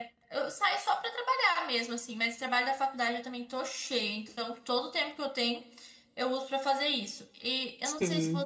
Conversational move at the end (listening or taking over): listening